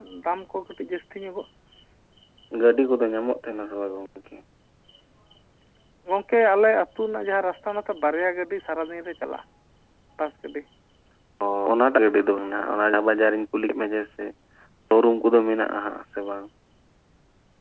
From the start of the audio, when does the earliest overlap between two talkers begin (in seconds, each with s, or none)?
none